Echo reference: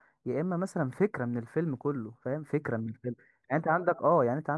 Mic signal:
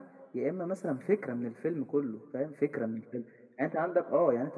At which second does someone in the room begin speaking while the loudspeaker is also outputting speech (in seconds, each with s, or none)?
none